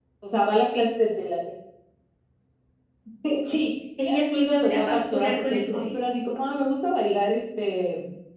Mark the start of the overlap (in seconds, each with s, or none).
4.0 s